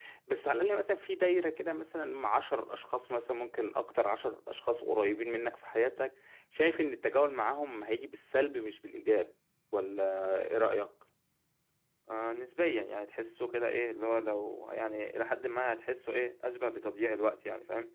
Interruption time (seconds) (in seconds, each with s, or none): none